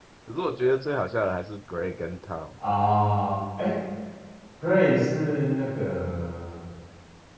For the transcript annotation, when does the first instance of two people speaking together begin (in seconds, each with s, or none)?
none